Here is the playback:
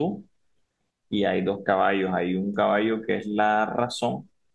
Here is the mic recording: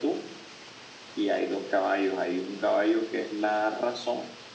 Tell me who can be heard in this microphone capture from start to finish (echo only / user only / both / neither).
echo only